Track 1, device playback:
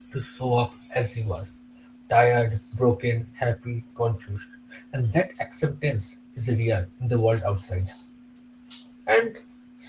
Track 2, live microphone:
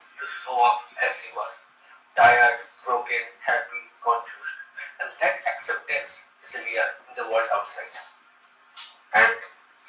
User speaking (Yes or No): No